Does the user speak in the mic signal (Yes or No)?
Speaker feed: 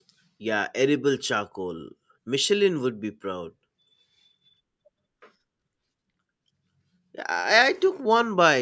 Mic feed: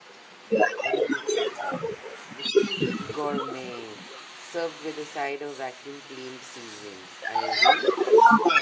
Yes